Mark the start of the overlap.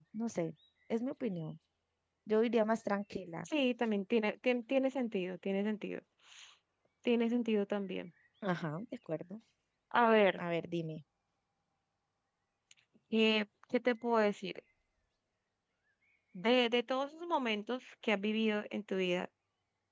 none

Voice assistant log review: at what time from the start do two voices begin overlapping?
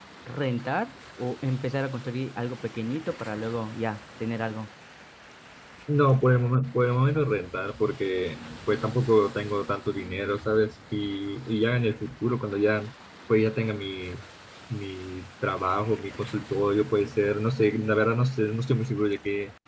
none

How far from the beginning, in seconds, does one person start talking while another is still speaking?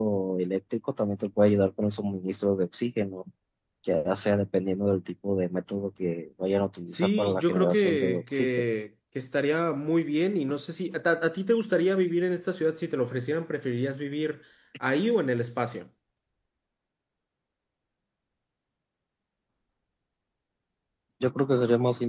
6.9 s

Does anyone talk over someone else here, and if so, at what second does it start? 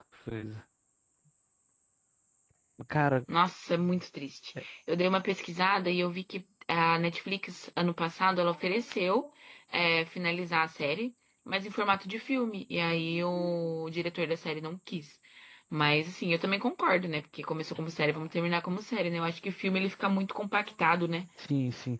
none

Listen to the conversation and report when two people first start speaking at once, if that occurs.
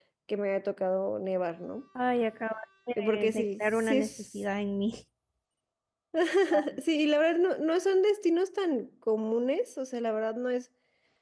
2.9 s

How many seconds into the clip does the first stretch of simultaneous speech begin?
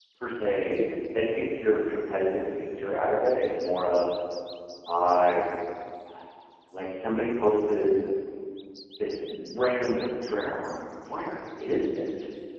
none

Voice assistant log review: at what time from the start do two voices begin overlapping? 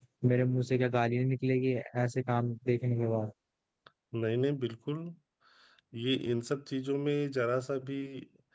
none

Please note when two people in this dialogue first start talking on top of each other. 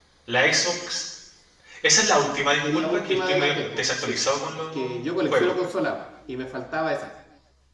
2.6 s

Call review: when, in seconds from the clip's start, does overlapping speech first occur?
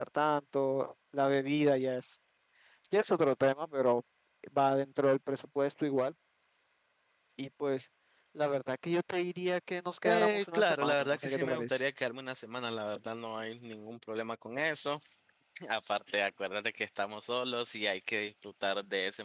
10.0 s

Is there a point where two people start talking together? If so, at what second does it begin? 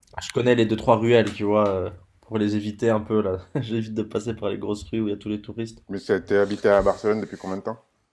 none

